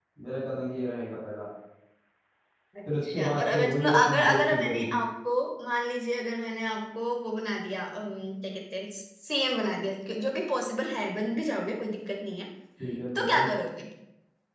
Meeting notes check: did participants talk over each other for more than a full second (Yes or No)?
Yes